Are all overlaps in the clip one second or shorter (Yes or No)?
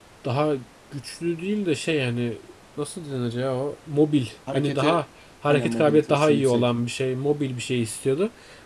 No